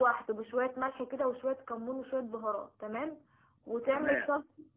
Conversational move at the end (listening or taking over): listening